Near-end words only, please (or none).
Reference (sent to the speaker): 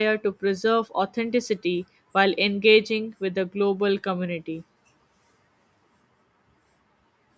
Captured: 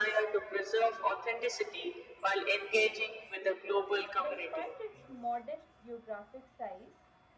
Despite its modest geographic size,